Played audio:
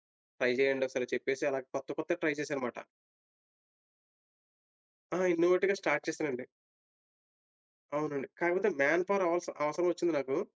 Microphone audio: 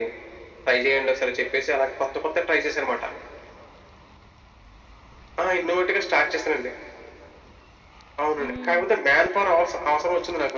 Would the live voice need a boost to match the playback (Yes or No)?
Yes